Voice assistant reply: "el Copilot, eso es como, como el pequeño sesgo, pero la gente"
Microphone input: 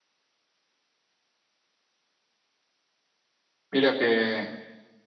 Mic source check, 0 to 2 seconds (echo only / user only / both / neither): neither